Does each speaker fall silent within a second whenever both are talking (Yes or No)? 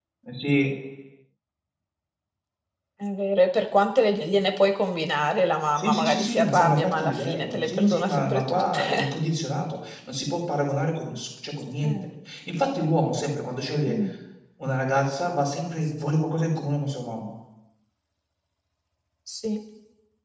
No